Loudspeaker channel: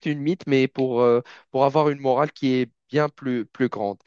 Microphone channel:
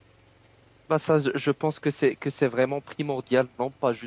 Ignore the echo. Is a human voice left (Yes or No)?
Yes